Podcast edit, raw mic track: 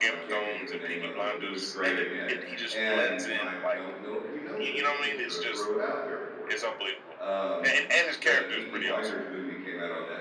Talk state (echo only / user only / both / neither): both